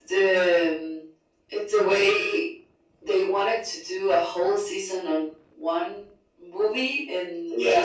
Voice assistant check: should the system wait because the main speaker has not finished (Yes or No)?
Yes